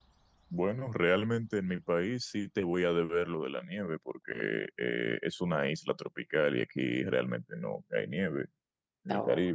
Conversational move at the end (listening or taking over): listening